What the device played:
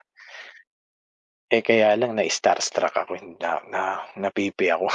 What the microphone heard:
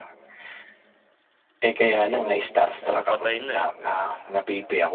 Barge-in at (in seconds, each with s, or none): 2.1 s